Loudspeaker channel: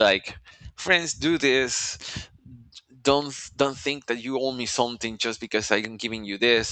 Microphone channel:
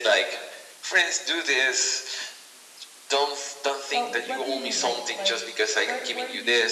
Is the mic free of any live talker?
No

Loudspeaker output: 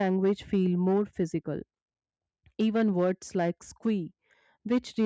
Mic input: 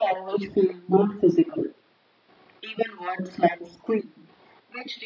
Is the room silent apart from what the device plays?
Yes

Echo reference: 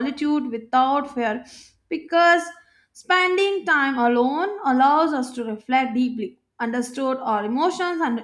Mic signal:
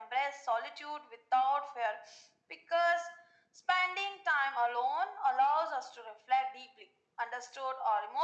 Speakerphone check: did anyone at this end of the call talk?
No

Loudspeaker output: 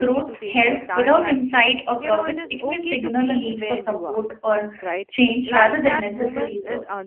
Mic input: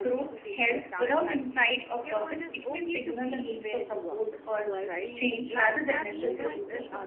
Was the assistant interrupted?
Yes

